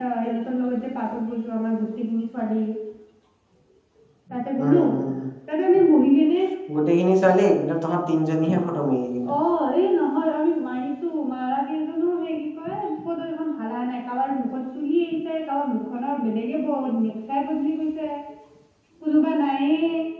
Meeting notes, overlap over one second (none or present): none